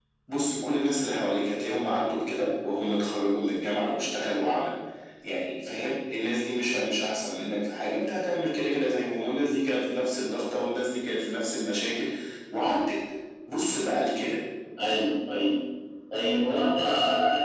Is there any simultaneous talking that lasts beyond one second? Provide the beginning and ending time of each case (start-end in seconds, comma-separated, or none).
none